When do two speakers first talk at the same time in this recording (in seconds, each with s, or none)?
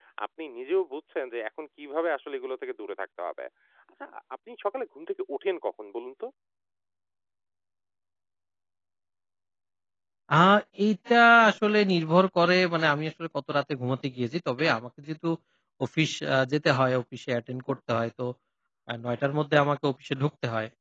none